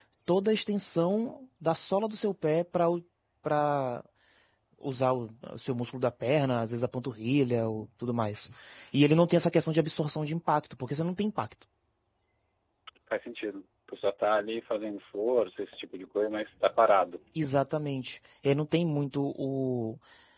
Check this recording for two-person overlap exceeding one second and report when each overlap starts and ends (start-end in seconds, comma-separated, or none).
none